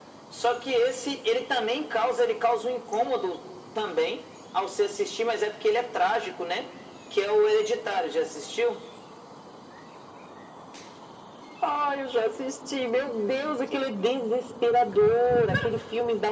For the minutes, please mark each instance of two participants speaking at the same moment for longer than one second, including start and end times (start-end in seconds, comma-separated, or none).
none